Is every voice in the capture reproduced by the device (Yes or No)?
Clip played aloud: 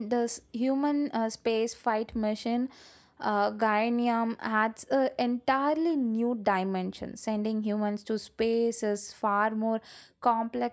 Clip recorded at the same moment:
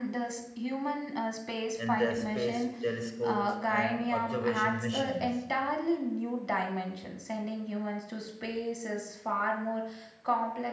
No